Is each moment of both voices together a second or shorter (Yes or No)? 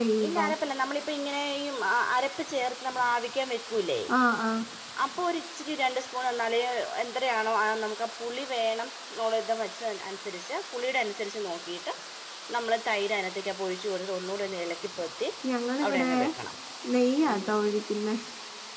Yes